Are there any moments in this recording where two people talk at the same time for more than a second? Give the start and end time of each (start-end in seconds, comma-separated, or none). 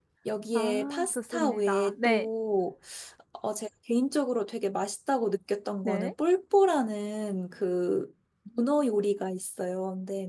0.5-2.3